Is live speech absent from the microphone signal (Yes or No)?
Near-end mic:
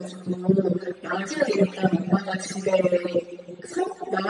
Yes